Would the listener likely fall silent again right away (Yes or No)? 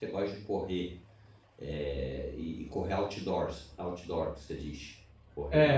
No